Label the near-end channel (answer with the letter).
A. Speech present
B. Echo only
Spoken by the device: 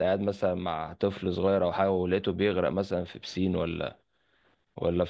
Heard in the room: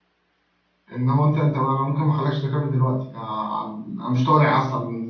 A